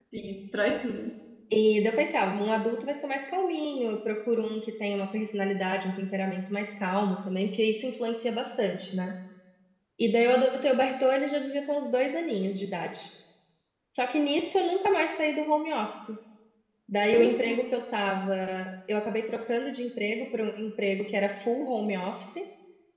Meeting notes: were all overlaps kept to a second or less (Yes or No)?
Yes